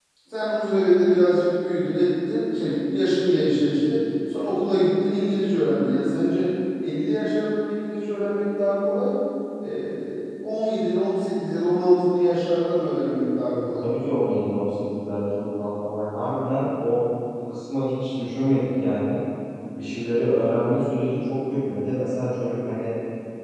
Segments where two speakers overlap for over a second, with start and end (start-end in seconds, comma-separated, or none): none